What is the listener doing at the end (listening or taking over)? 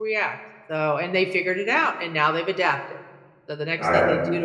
listening